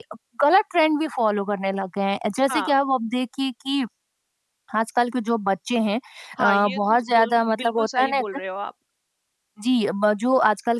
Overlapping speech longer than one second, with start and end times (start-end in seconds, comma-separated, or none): 6.4-8.2